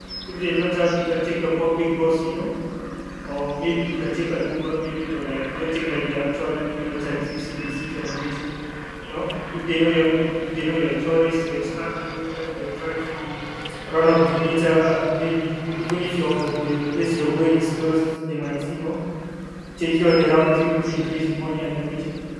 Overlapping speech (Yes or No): No